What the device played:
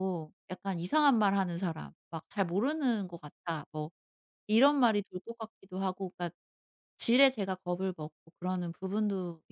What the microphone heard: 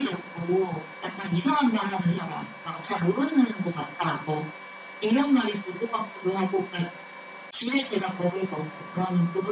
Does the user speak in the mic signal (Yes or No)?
No